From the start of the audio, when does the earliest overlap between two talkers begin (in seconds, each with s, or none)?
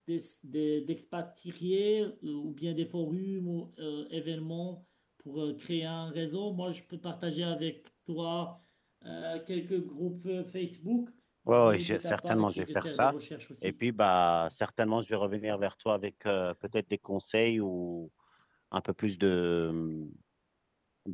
11.5 s